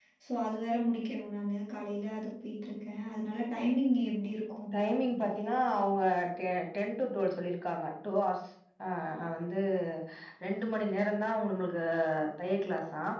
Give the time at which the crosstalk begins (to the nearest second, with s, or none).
none